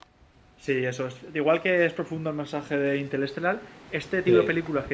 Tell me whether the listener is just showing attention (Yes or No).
Yes